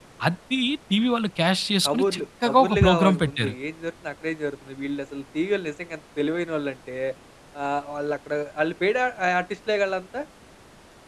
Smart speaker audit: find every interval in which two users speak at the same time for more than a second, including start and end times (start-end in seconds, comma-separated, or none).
1.8-3.5